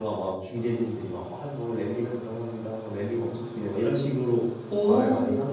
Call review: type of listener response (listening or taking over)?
taking over